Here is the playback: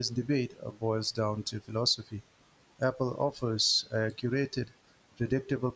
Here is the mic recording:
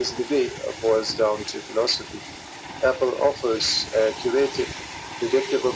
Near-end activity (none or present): none